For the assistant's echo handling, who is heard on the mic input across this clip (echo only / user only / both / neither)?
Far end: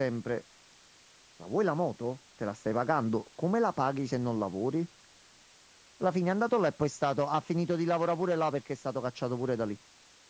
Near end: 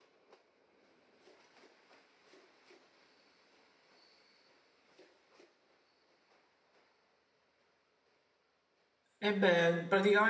user only